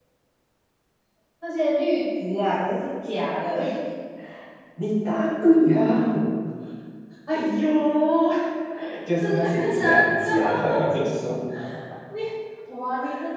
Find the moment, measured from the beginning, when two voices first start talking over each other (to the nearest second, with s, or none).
9 s